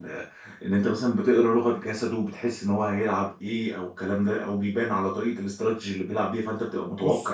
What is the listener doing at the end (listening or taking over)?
taking over